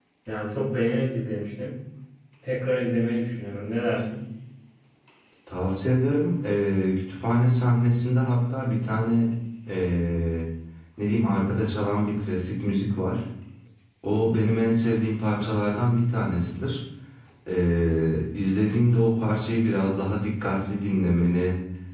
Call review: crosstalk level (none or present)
none